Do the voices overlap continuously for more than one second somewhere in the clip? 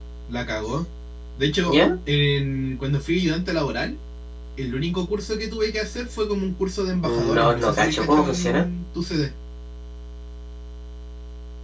Yes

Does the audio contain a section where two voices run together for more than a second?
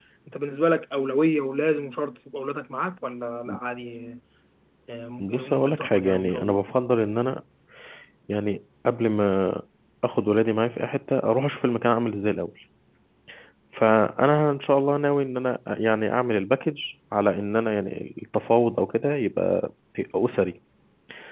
Yes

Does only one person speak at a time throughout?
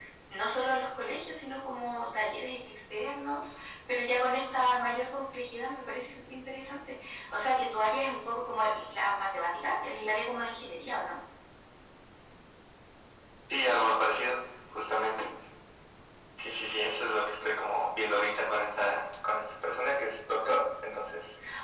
Yes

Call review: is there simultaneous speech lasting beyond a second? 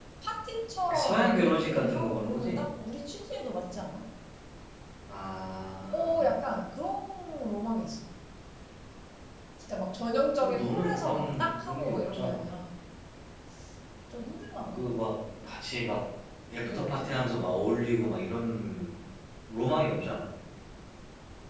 Yes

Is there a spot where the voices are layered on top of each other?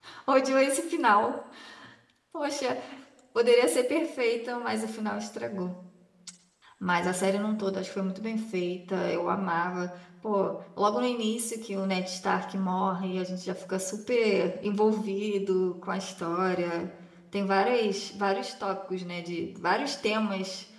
No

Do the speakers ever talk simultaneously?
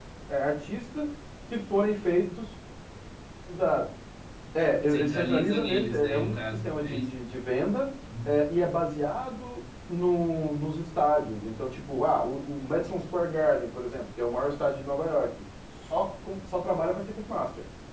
Yes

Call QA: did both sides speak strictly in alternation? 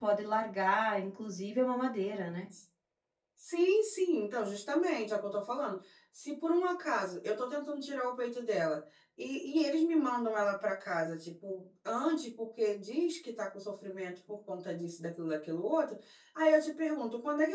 Yes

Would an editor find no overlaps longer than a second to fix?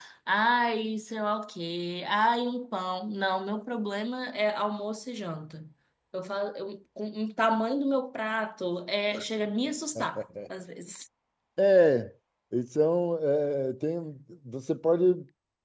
Yes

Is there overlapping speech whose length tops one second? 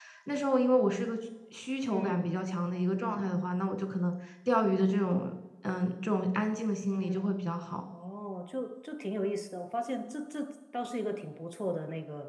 No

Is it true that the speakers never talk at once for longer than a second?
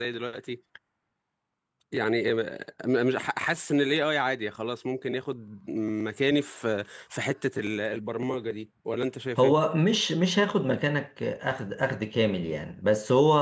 Yes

